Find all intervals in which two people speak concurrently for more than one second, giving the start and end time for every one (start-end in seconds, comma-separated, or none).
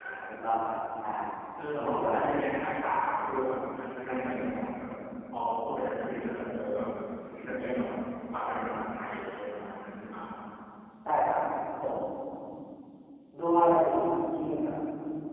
none